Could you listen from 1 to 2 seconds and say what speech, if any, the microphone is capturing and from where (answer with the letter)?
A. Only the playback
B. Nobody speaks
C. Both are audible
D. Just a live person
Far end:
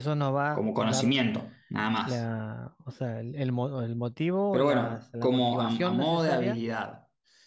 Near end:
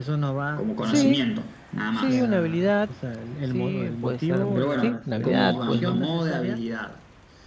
C